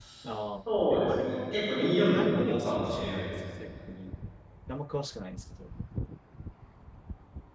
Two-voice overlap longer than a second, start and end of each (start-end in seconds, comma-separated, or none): 0.9-3.3